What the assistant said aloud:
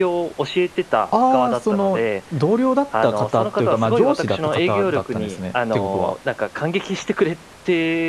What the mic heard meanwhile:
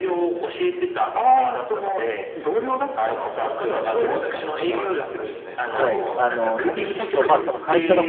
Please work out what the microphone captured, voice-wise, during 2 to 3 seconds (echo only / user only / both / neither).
echo only